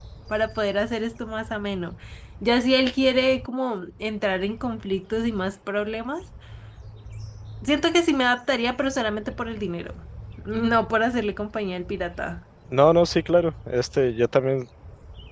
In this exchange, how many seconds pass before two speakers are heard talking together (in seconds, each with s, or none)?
none